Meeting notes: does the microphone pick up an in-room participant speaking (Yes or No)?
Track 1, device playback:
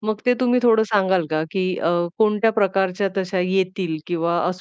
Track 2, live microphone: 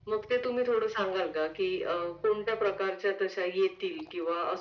No